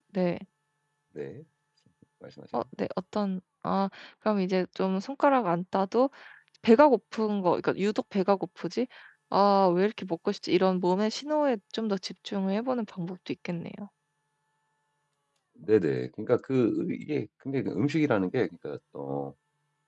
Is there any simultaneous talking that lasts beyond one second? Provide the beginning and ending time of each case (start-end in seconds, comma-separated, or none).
none